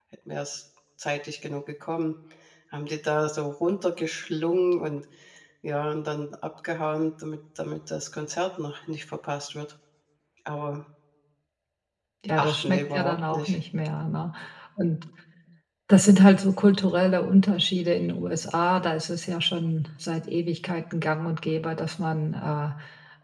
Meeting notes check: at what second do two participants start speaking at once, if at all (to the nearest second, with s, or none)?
12 s